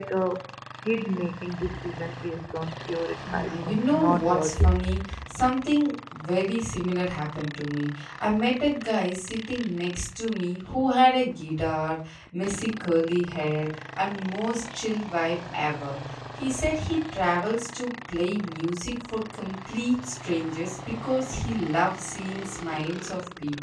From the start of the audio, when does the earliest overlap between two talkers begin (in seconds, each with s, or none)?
3.2 s